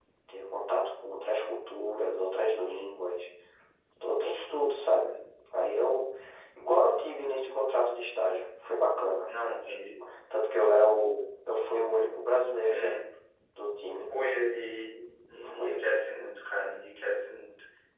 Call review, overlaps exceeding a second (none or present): none